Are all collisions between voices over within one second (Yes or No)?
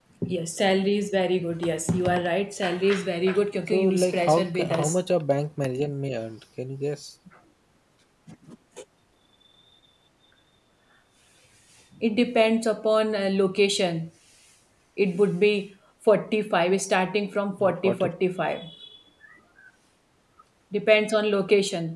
No